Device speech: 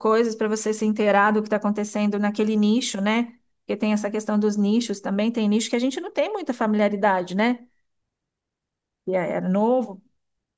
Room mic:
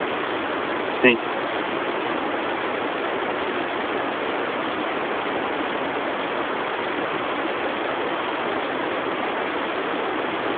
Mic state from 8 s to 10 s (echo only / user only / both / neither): neither